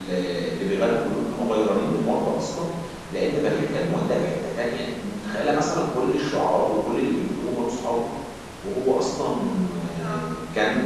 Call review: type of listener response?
listening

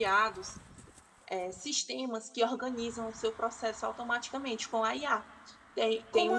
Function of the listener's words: listening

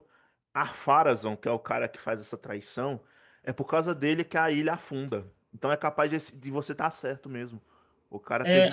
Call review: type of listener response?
taking over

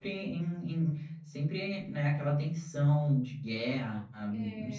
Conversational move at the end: listening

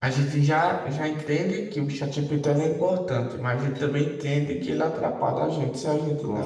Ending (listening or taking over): taking over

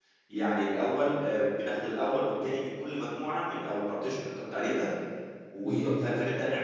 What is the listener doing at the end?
listening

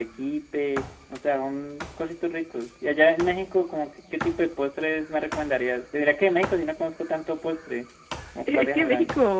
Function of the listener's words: taking over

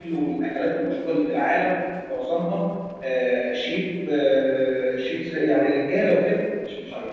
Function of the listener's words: taking over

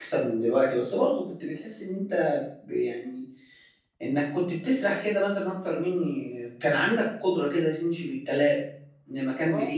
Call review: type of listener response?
listening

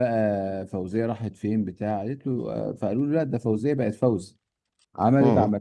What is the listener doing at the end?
listening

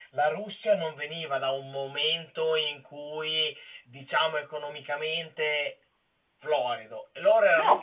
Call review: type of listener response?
listening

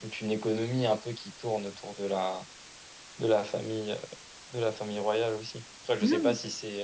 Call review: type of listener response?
listening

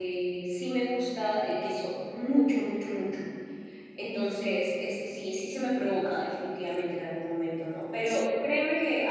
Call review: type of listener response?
listening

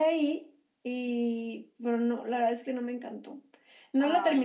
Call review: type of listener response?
listening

